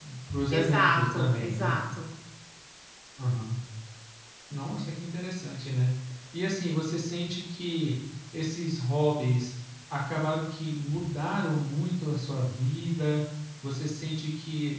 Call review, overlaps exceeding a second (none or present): present